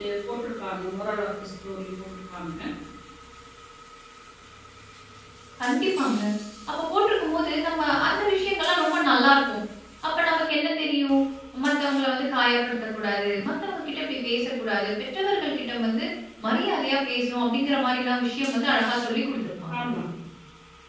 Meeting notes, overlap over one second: none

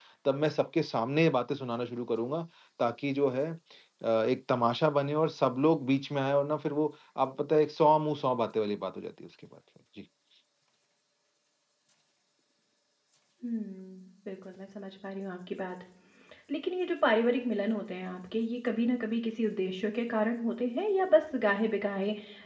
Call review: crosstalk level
none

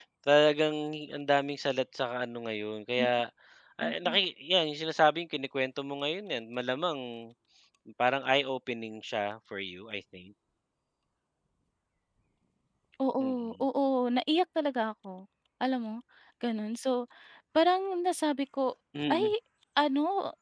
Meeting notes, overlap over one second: none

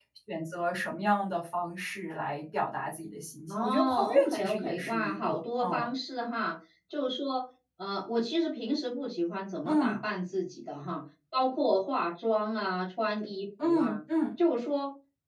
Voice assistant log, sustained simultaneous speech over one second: present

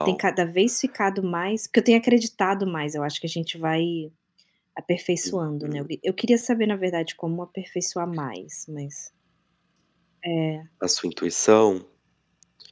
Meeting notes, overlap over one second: none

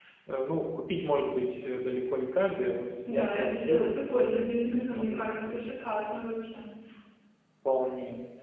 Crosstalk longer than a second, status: present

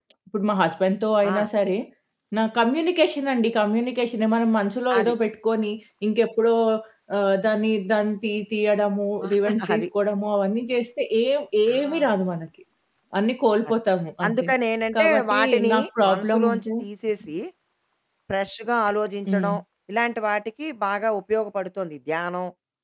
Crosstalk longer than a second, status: present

